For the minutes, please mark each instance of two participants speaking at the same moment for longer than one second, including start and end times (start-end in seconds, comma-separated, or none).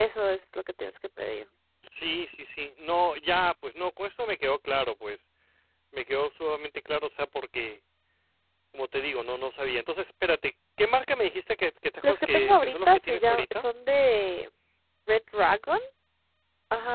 12.0-13.6